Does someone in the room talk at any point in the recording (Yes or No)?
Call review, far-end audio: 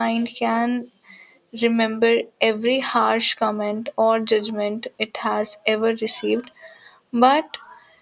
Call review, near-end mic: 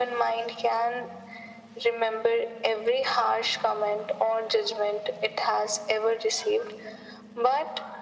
No